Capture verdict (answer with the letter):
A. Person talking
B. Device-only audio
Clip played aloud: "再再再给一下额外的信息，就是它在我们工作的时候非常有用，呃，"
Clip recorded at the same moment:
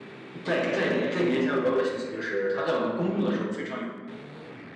B